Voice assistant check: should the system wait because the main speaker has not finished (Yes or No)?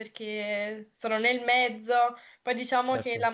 Yes